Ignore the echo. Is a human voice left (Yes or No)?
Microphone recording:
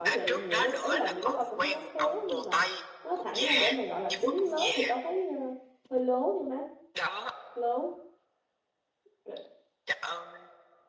Yes